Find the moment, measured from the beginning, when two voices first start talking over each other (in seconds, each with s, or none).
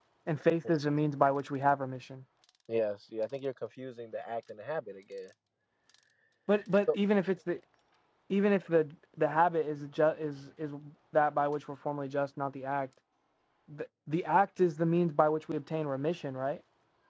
none